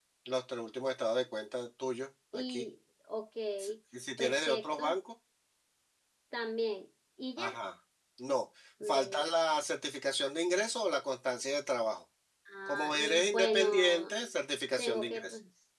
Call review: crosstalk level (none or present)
present